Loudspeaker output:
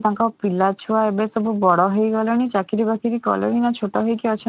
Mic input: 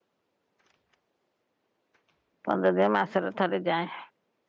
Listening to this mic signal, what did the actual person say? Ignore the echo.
ପନ୍ଦର ଦିନି ମାସରେ ଥରେ ଯାଏ।

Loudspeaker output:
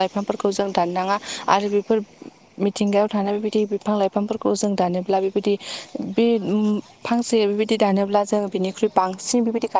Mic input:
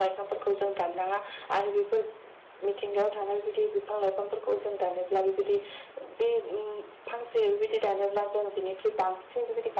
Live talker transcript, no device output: none

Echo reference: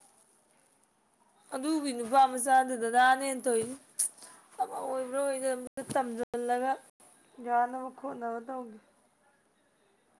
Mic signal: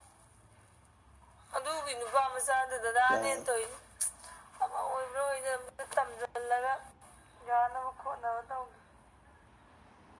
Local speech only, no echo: ꯌꯥꯎꯔꯔꯣꯢ

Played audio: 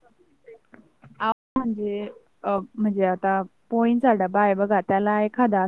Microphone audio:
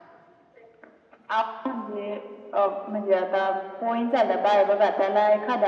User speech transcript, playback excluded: none

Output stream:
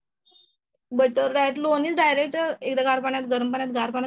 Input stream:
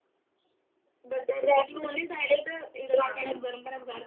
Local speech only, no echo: हा हा

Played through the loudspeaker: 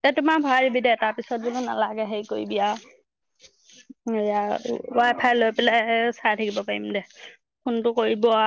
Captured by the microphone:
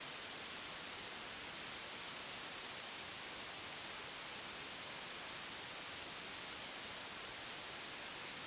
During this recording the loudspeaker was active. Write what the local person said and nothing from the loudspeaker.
none

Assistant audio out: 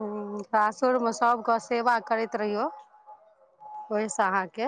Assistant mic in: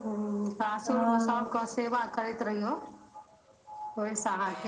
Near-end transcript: हँ

